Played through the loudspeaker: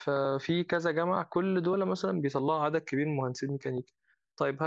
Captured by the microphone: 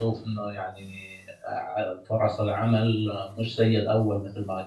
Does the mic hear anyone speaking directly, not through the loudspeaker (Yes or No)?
Yes